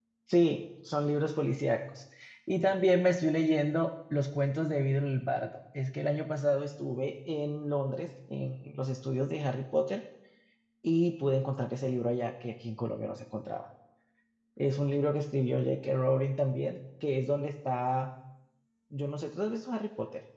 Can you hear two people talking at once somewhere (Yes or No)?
No